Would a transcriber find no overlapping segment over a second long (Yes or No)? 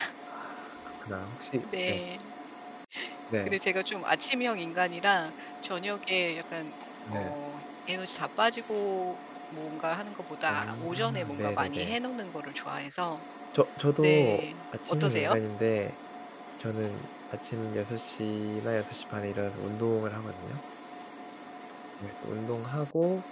No